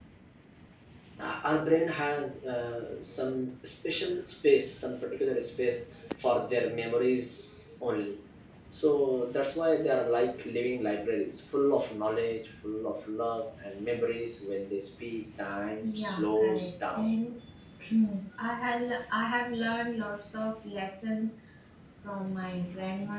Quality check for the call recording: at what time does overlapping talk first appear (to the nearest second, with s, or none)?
16 s